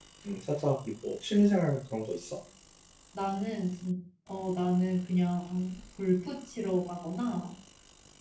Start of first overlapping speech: none

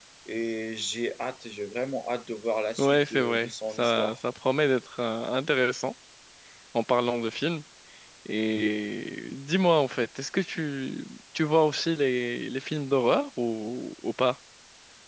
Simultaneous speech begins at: 2.8 s

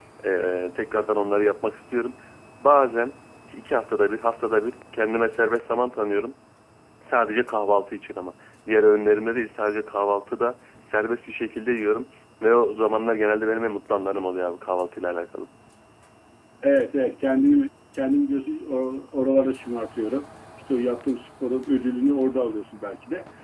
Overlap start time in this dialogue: none

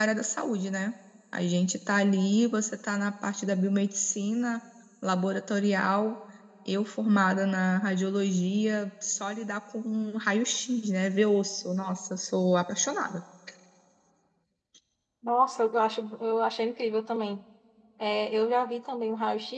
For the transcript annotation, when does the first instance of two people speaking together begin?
none

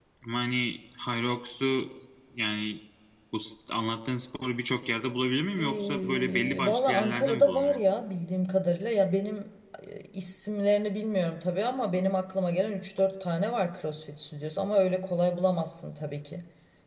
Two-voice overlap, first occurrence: 5.6 s

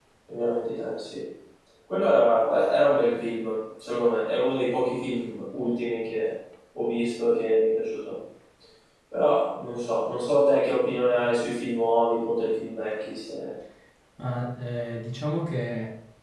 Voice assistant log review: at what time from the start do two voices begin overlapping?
none

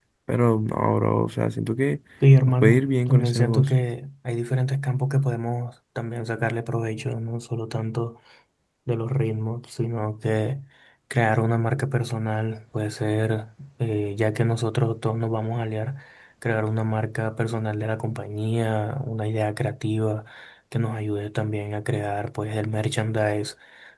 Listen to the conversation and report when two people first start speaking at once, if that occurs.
2.5 s

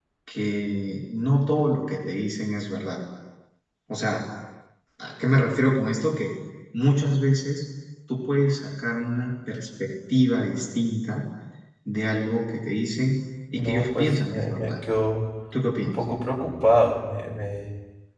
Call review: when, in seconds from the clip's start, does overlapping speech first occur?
13.6 s

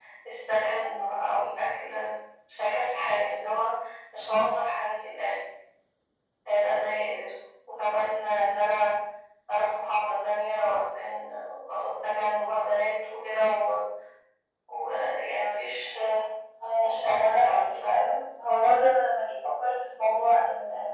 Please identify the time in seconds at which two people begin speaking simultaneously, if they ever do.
16.8 s

